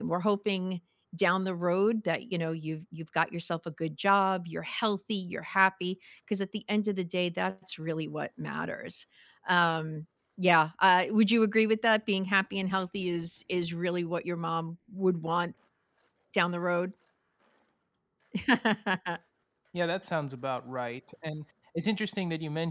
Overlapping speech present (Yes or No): No